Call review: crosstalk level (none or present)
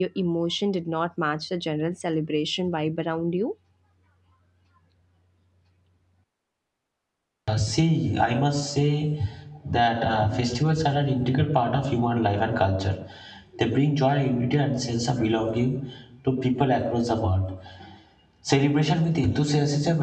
none